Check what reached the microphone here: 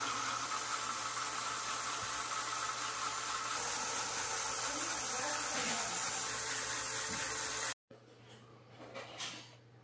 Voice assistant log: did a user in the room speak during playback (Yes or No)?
No